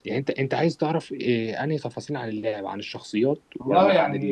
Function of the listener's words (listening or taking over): taking over